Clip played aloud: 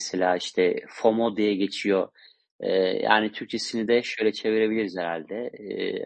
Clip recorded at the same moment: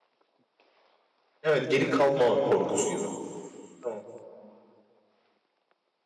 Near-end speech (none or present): present